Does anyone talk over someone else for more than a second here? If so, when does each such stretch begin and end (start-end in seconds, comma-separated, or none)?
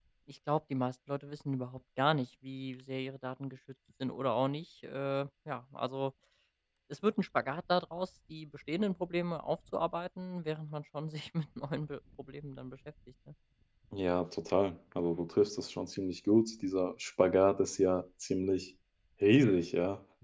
none